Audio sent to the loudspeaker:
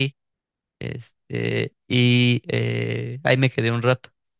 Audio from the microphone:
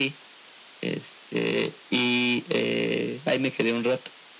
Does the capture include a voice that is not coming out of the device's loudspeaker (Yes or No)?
No